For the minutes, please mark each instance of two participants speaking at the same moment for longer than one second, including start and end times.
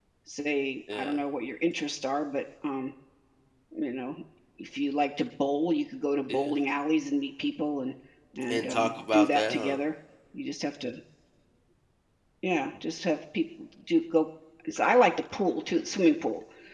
8.5-9.8

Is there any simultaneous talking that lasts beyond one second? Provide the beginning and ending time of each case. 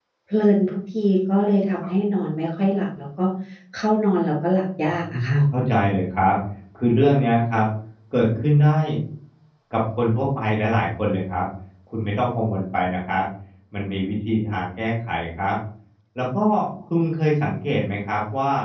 none

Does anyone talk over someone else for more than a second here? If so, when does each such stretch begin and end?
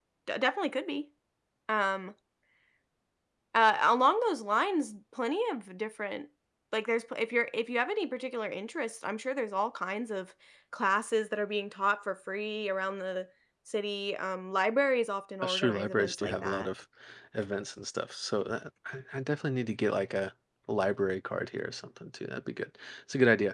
15.4-16.7

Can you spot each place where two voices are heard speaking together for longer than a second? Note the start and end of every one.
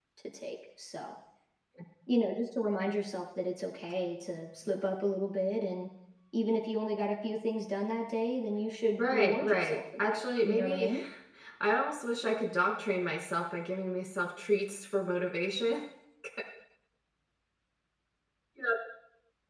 9.0-10.9

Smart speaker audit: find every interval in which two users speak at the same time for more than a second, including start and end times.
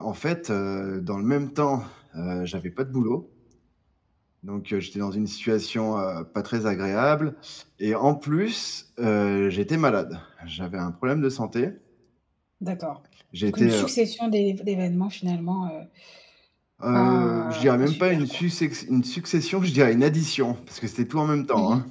16.9-18.4

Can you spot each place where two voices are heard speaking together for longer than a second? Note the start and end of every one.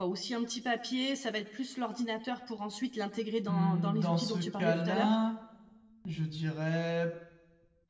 3.5-5.2

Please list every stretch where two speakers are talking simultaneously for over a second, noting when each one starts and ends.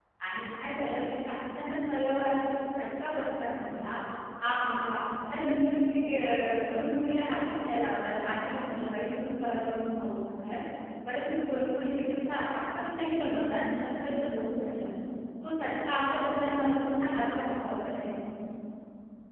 none

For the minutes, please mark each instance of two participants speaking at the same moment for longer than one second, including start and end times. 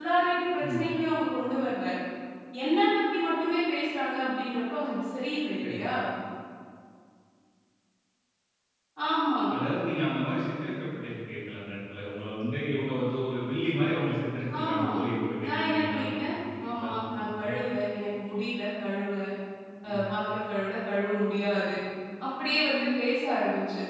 15.4-17.5

